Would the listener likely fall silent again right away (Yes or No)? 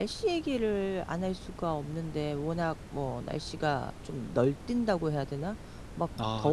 Yes